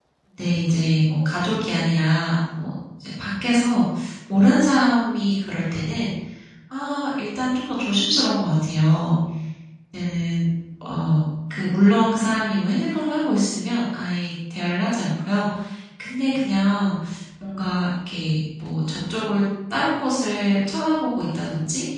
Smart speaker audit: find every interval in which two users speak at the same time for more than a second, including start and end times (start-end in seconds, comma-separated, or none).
none